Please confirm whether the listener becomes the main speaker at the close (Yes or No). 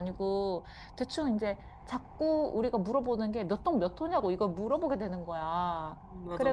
No